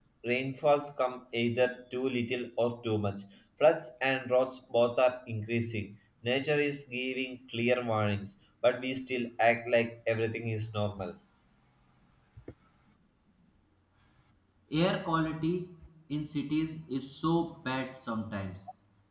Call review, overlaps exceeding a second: none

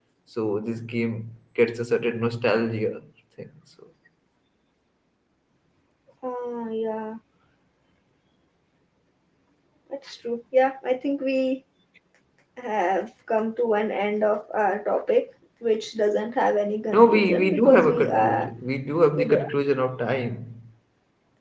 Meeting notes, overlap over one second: present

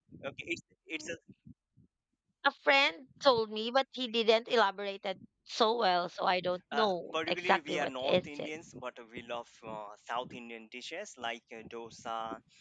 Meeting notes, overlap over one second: present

